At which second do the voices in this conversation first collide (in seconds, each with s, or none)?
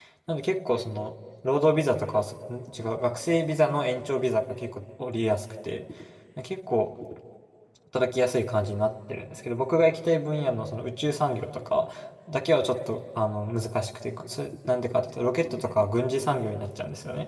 none